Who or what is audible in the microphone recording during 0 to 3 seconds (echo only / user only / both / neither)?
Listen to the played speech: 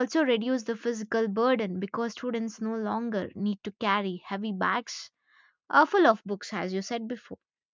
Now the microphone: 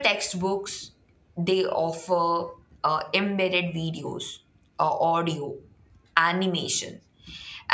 user only